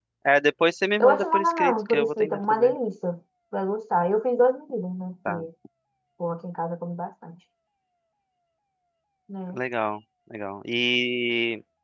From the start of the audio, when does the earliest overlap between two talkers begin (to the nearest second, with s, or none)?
1 s